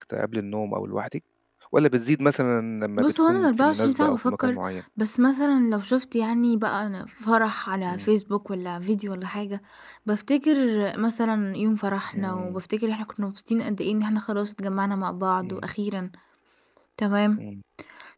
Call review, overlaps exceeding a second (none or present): present